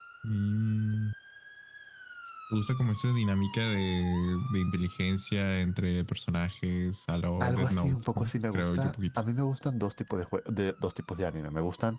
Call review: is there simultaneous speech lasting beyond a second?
Yes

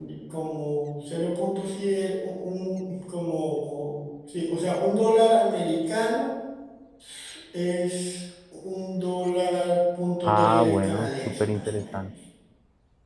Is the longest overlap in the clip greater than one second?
Yes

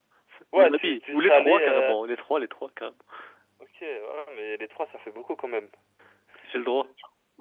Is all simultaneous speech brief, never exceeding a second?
No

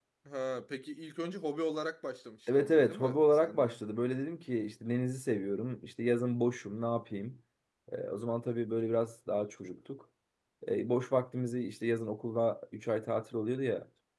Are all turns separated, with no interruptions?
No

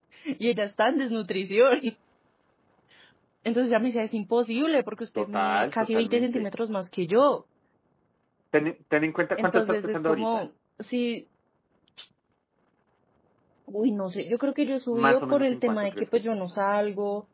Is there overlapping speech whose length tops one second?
Yes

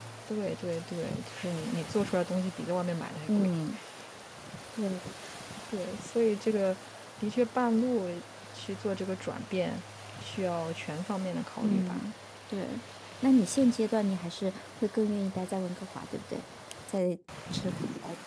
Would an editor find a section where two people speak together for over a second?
No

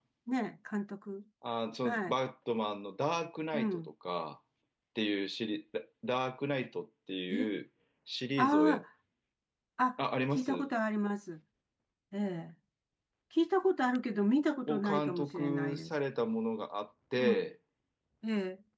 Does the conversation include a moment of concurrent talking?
Yes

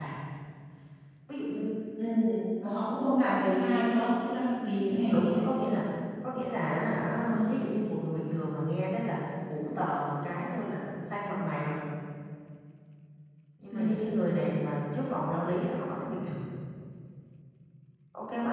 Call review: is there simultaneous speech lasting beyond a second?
No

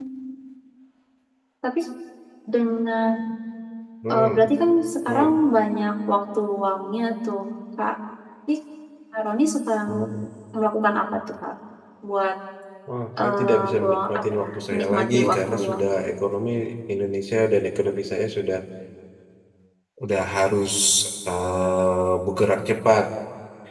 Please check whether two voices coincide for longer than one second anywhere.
Yes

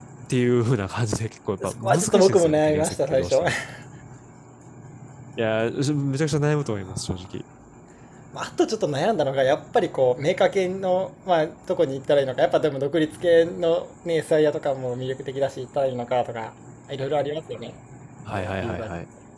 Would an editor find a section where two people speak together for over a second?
Yes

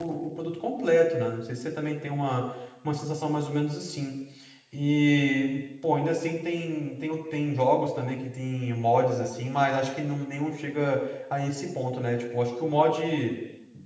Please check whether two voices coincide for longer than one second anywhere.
No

